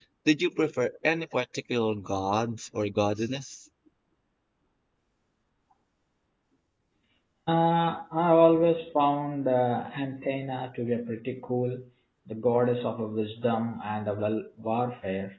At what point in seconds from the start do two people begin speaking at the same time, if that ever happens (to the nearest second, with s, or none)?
none